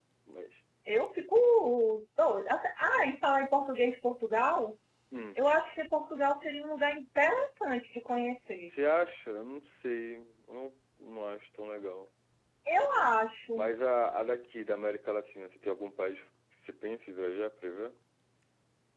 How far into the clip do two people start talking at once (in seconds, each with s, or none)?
none